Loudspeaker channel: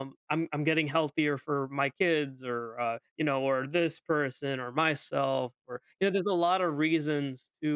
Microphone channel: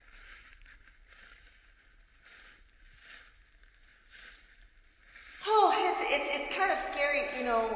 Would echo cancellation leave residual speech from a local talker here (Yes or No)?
Yes